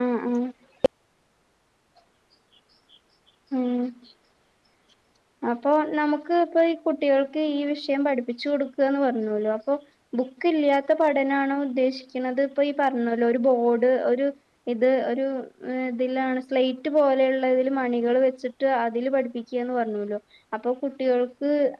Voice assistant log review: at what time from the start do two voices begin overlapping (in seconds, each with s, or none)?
none